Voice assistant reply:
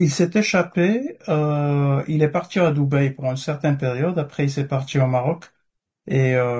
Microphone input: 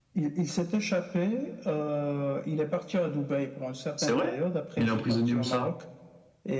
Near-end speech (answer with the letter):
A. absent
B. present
B